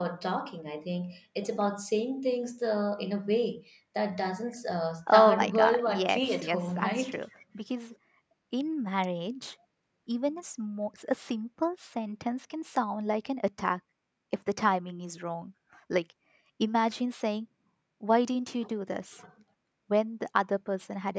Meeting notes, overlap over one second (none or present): present